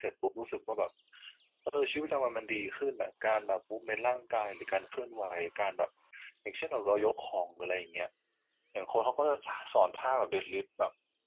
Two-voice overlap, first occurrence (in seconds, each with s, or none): none